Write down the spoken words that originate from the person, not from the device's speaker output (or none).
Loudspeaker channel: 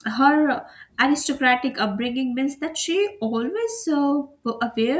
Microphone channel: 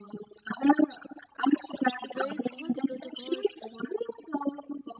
break all the protocols